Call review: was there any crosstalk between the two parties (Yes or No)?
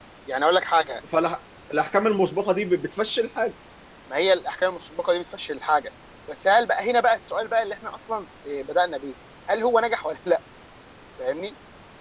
No